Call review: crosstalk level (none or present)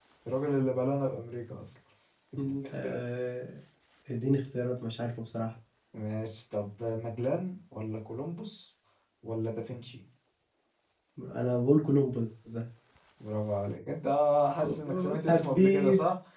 present